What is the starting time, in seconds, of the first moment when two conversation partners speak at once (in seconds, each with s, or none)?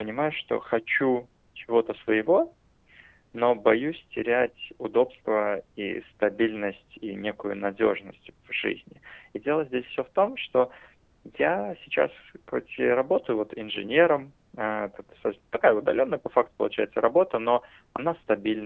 none